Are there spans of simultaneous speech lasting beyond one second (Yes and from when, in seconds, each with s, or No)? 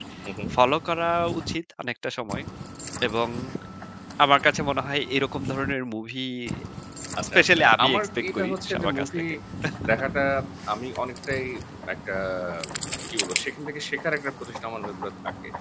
Yes, from 7.4 s